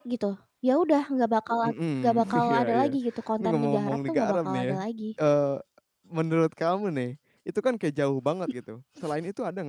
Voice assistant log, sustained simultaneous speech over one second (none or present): present